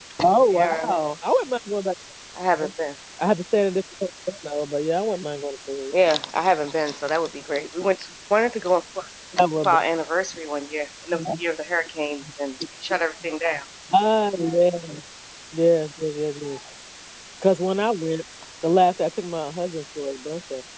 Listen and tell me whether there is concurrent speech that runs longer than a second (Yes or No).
No